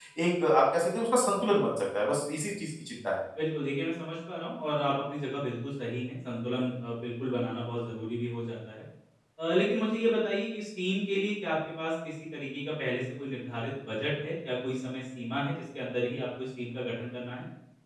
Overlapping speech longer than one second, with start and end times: none

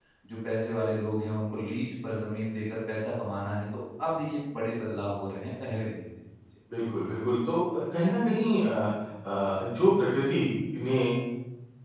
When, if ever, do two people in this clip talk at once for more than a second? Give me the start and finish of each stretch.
none

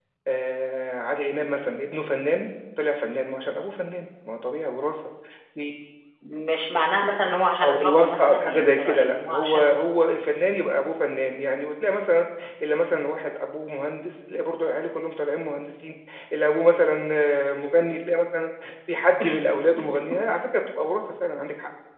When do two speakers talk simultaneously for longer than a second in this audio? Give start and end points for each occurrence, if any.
7.6-9.7

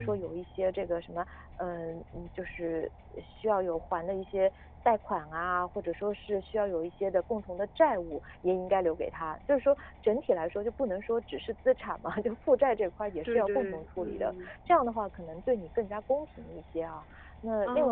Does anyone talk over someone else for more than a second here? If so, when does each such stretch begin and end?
13.2-14.5

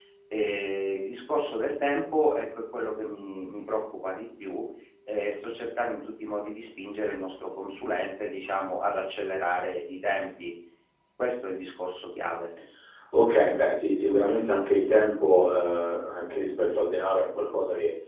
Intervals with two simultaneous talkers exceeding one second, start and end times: none

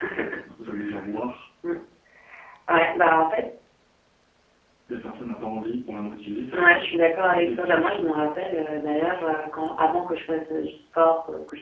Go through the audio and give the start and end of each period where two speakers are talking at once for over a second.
6.5-8.1

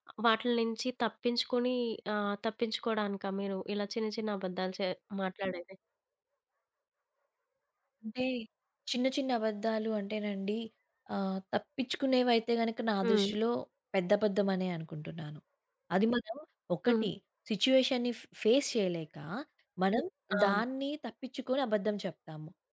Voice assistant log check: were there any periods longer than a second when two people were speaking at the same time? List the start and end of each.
none

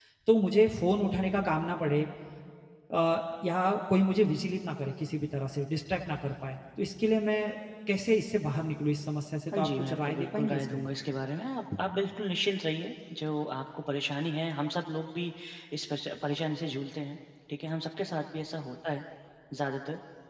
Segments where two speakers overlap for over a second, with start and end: 9.5-10.9

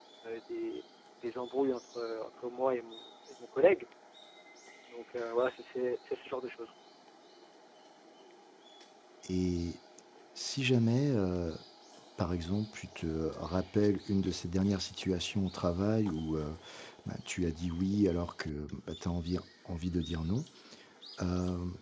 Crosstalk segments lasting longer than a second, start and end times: none

